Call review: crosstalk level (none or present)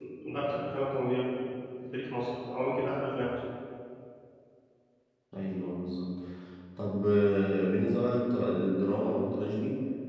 none